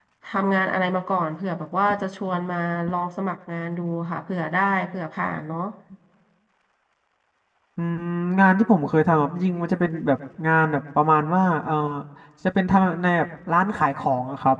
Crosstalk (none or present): none